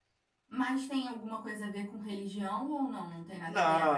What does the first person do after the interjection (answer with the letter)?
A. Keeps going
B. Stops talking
B